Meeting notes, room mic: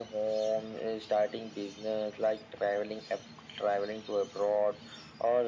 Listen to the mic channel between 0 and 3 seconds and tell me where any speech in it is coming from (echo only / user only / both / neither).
echo only